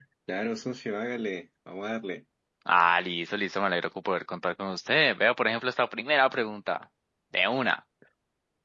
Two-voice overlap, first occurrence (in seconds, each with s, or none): none